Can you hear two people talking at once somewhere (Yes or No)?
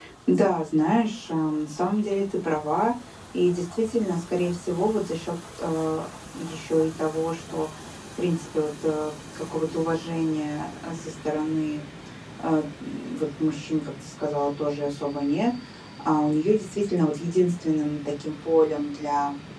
No